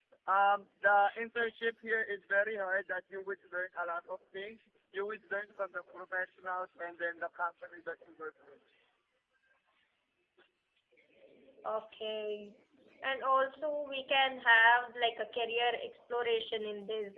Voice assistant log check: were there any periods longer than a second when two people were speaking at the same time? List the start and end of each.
none

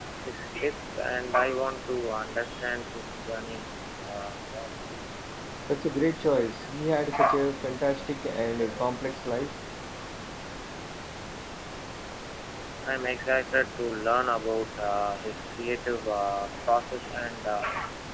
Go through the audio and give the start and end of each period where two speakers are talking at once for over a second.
none

